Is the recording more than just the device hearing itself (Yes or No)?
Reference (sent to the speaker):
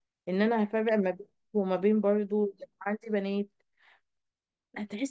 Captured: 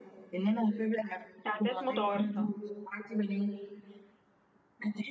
Yes